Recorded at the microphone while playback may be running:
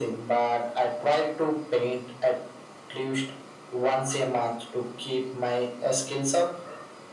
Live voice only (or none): none